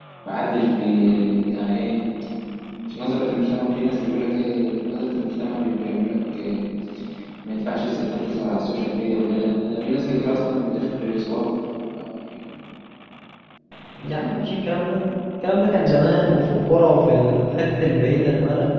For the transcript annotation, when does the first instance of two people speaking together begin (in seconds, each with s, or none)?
none